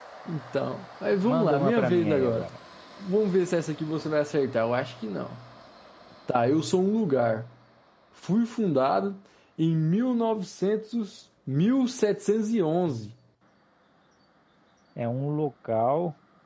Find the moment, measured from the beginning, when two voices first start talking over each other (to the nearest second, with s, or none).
1 s